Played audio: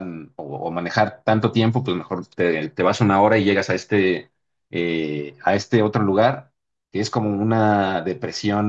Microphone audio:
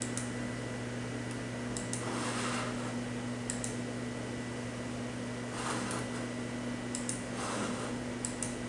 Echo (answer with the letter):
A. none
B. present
A